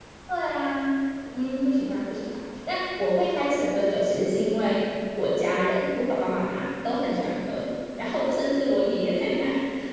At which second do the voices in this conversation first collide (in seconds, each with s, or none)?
none